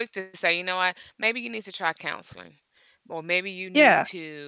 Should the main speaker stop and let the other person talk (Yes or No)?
No